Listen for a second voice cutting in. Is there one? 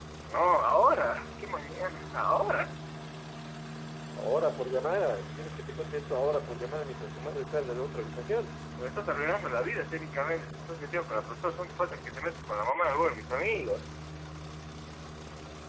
No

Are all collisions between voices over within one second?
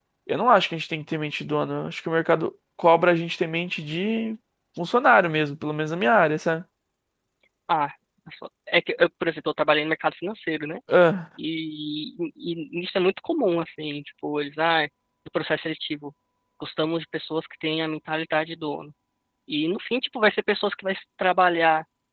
Yes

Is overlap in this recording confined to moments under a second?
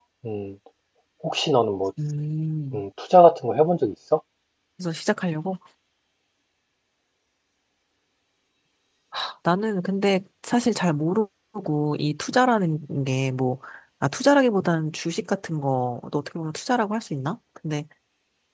Yes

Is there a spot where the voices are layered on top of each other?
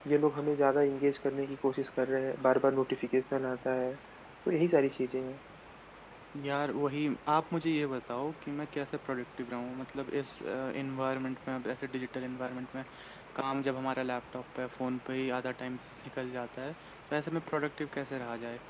No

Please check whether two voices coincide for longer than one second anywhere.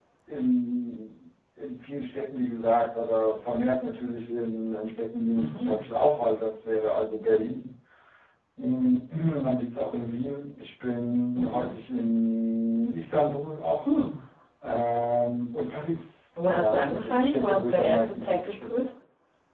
Yes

